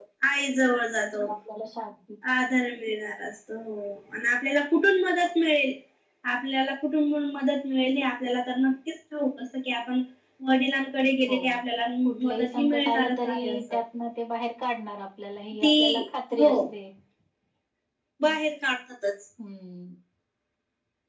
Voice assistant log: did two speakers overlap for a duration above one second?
Yes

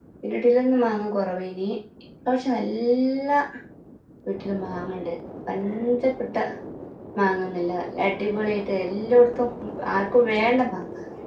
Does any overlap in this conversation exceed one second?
No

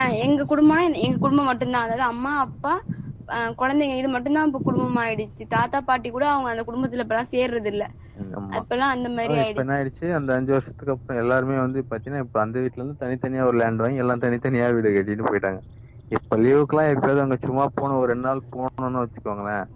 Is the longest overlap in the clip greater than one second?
No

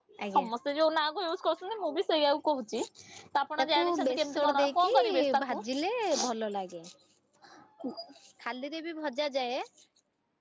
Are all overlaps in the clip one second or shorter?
No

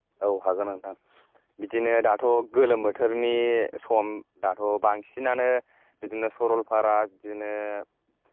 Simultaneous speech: No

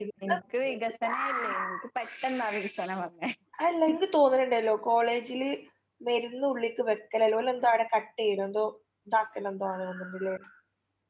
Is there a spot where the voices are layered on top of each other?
No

